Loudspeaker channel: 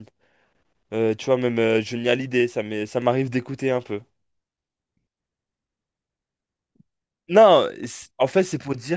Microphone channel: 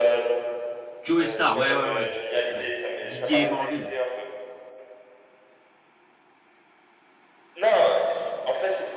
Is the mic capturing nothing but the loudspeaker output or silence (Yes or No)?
No